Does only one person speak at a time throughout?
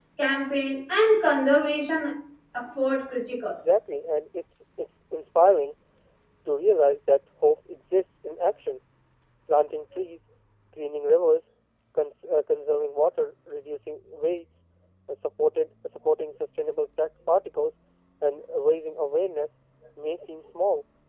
Yes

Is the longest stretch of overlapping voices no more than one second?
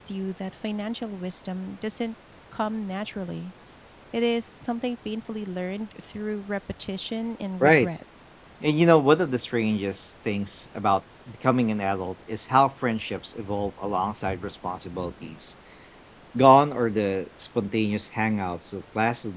Yes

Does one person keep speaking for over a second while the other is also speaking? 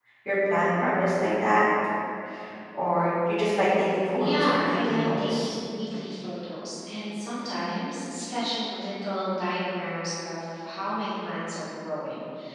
Yes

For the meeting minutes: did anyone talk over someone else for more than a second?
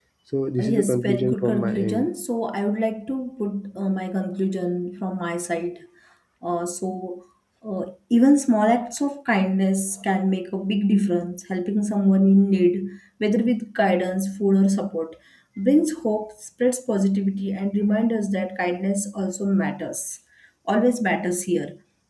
Yes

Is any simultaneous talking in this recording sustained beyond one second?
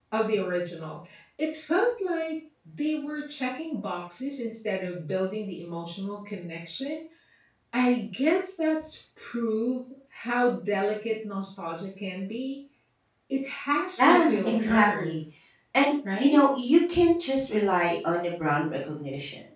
Yes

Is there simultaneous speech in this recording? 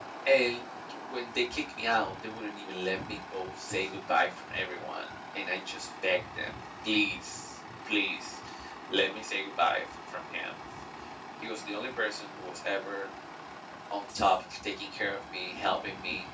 No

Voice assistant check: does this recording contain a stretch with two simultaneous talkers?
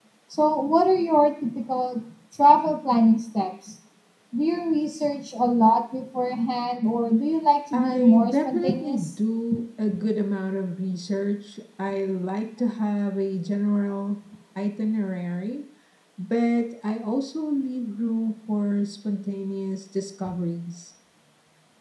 Yes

